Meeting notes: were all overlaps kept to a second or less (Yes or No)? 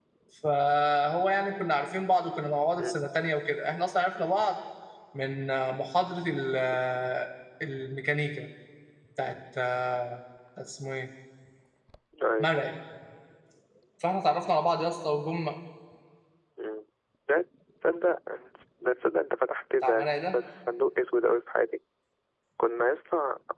Yes